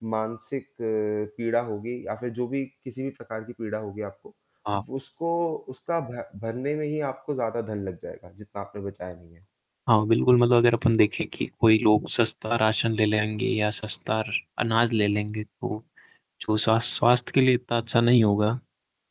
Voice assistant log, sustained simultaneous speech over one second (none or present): none